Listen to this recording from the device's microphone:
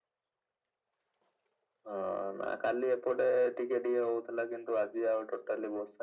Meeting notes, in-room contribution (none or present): none